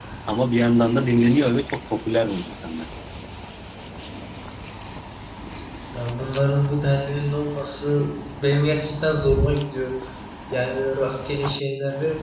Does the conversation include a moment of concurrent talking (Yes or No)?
No